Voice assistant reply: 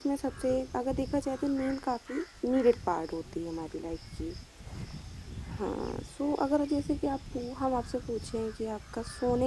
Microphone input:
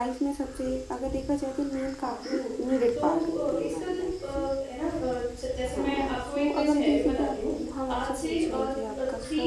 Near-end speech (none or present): present